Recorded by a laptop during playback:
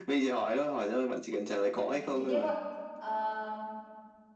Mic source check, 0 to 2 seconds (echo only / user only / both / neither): both